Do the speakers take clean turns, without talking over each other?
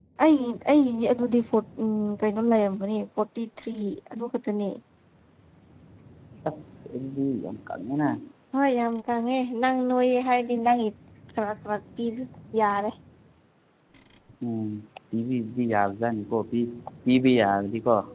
Yes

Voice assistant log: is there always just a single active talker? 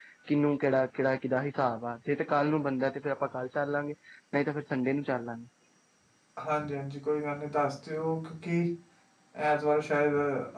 Yes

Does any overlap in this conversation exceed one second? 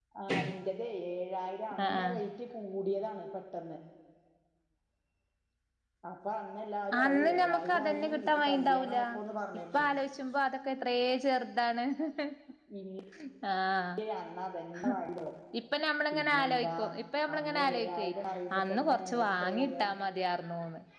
Yes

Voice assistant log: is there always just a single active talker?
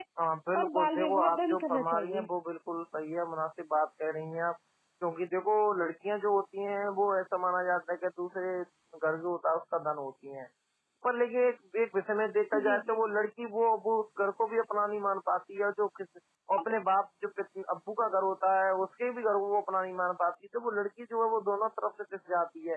No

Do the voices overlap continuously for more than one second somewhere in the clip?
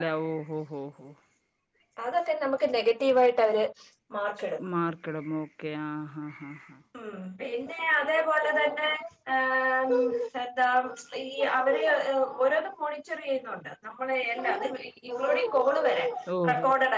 No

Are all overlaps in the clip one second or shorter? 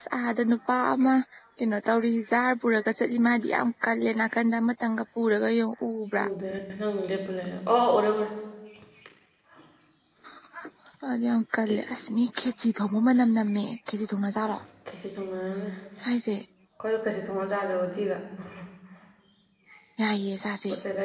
Yes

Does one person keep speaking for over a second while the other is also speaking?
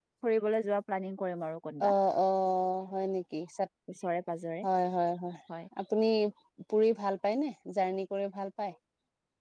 No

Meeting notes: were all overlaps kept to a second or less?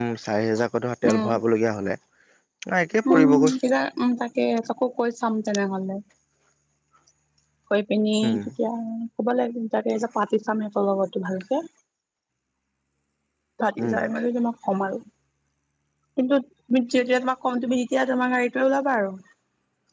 Yes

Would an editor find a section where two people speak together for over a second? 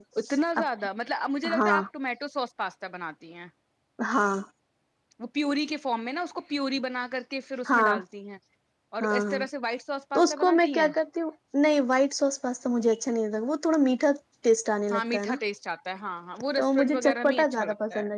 Yes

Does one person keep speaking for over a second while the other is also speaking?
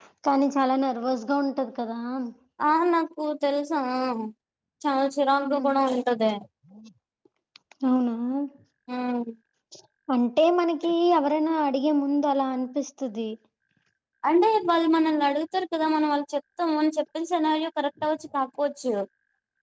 No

